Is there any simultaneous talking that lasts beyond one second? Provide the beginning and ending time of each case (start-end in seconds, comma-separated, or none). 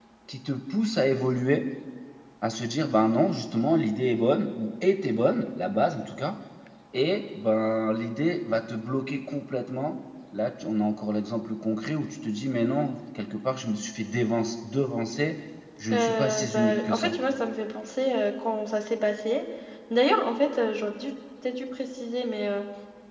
15.9-17.1